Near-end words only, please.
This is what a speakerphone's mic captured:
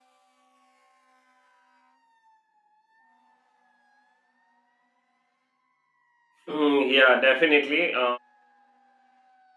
Mm, yeah, definitely. Uh,

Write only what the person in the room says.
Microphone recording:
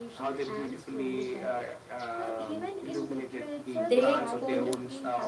they could

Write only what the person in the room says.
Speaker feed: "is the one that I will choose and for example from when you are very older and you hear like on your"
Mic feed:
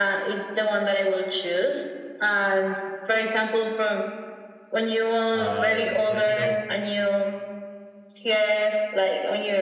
Um, but you know,

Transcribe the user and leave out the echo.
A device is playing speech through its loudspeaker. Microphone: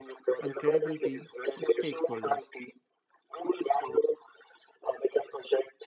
and credibility with stakeholders

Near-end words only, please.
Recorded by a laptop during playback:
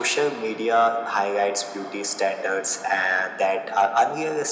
none

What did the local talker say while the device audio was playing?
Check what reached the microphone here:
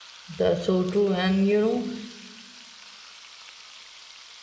That's so true. And you know,

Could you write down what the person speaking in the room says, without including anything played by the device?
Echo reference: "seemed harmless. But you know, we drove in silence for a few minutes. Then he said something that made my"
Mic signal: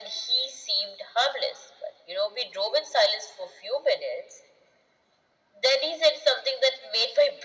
none

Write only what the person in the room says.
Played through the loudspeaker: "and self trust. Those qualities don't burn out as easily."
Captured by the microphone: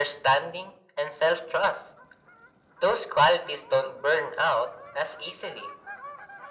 none

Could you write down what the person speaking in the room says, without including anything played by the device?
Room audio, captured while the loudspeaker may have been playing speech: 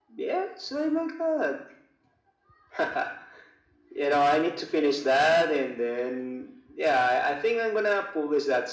none

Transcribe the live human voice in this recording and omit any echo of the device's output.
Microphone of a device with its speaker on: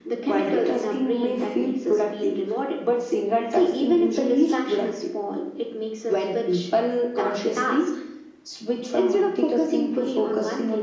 none

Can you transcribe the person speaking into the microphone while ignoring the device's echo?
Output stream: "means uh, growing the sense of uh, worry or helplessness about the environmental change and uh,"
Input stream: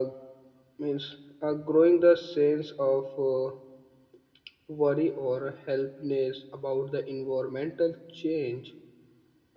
none

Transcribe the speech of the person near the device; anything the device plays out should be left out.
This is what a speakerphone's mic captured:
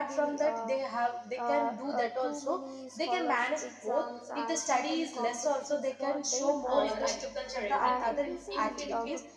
or agriculture everything in, in

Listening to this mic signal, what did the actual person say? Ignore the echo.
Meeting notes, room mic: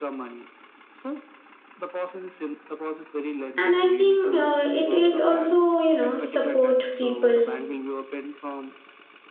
and i think uh, it is also you know support people

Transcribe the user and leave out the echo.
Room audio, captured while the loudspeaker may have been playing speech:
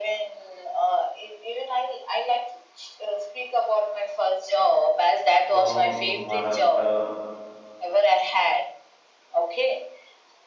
from maharashtra

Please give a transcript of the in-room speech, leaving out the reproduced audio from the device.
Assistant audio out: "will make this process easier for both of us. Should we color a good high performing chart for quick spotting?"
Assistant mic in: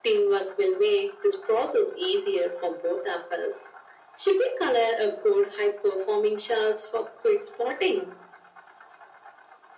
none

